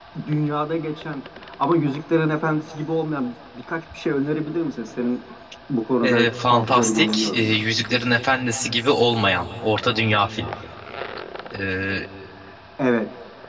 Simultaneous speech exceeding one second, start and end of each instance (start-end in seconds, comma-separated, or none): 6.0-7.6